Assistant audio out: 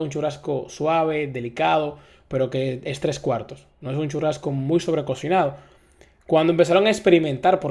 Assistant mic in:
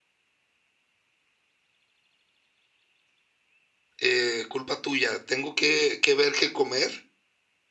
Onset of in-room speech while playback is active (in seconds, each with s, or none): 4.0 s